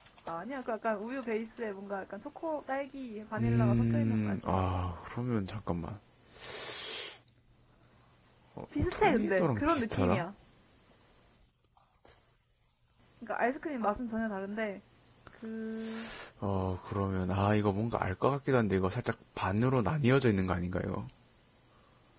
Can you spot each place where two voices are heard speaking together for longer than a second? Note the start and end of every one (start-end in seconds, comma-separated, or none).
3.4-4.6, 8.9-10.2